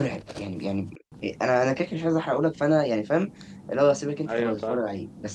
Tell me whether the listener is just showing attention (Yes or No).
Yes